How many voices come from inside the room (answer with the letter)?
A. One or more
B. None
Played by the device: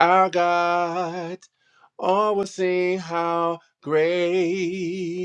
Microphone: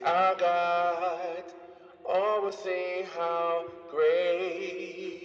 B